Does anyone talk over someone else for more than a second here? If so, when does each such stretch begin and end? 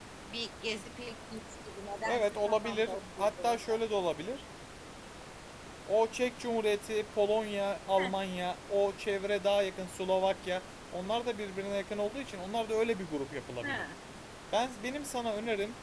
2.0-3.6

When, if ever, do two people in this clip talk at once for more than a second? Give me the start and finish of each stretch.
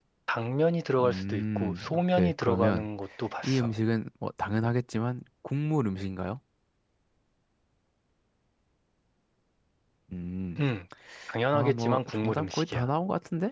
1.0-2.9, 11.5-12.9

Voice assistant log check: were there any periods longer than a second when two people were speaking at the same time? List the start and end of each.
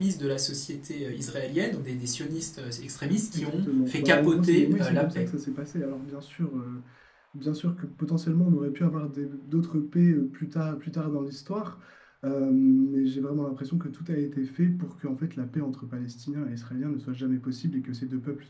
3.3-5.3

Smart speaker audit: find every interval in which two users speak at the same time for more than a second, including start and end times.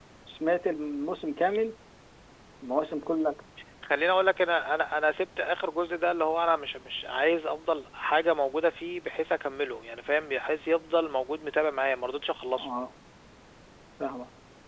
none

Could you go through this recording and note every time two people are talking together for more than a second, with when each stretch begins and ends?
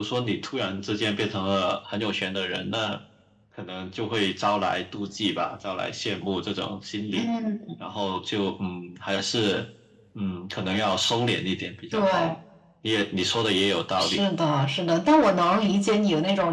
none

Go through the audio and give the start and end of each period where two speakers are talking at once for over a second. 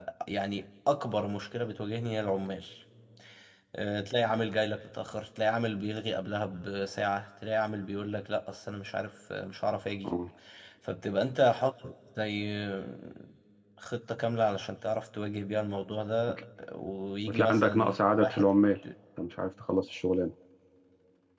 17.3-18.5

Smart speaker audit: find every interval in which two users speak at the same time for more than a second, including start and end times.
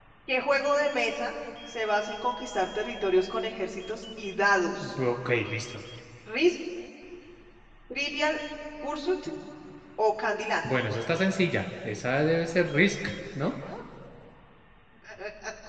none

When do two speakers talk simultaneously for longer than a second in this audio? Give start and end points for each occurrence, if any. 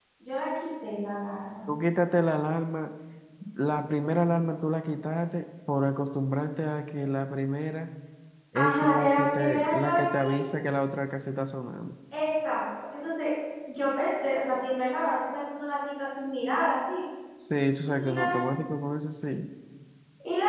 8.6-10.3

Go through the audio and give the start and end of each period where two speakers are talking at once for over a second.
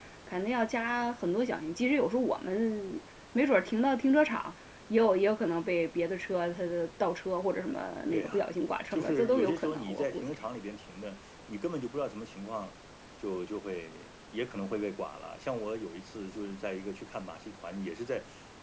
8.9-10.4

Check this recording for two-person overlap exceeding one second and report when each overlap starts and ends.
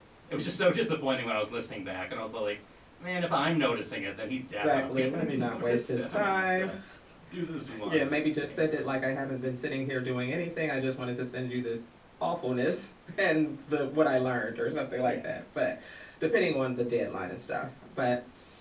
4.6-6.7

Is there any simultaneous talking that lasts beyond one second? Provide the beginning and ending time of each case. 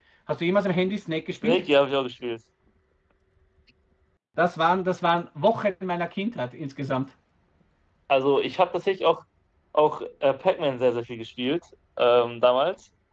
none

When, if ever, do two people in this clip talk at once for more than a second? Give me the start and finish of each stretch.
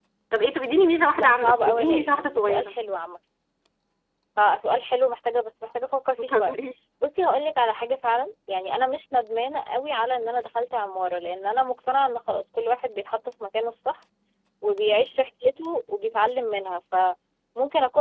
1.2-2.7

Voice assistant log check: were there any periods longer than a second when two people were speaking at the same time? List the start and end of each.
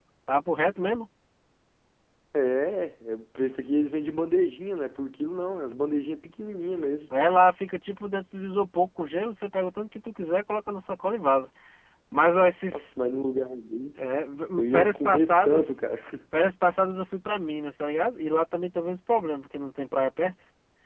14.6-15.8

